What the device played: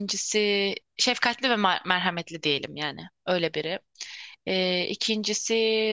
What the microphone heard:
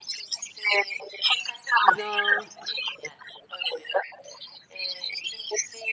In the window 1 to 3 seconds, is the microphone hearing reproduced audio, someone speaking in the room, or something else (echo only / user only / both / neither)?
both